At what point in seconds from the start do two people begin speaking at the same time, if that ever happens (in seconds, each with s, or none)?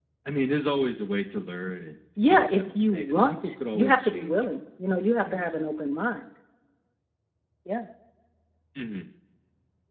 2.2 s